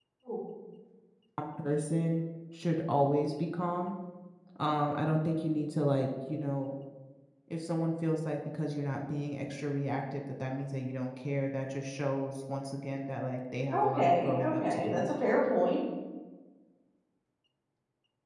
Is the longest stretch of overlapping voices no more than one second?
No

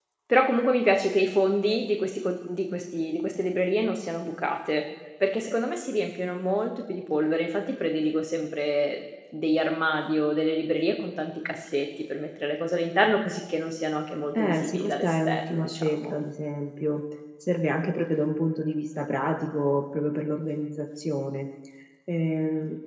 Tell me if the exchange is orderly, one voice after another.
No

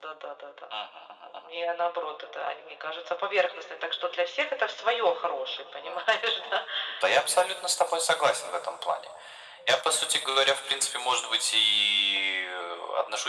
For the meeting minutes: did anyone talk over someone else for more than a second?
No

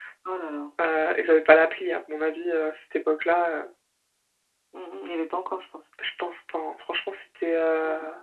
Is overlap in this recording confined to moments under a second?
Yes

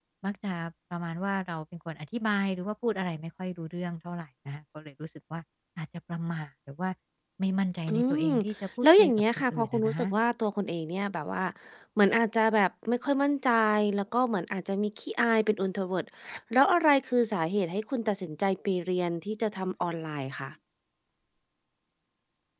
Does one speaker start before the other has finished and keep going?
Yes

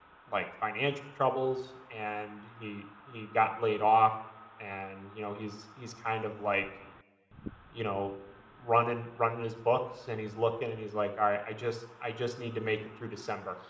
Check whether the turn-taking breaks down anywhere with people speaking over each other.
No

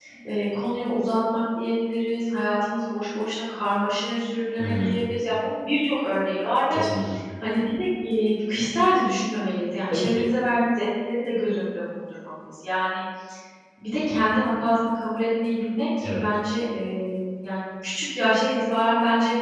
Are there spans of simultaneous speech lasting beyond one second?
No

